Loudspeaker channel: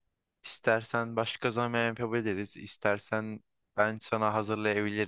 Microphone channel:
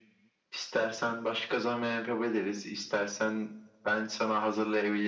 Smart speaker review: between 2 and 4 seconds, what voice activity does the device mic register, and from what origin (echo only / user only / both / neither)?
echo only